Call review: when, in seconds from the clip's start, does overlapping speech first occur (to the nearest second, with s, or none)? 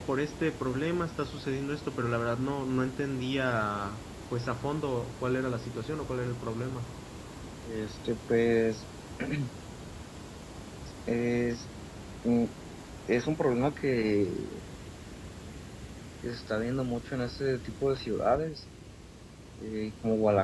none